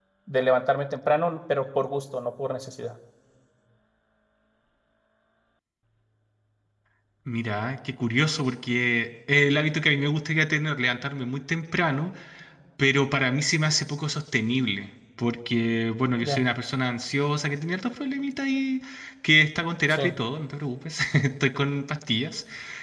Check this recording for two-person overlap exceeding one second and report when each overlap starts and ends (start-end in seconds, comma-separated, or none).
none